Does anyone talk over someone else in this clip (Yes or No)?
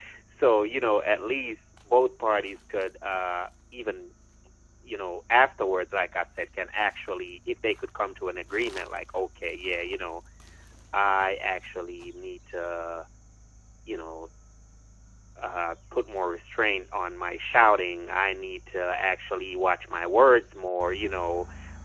No